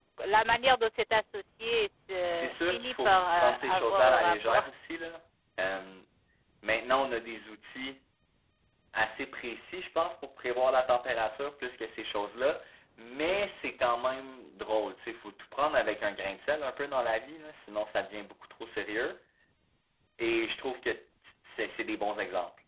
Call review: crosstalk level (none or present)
present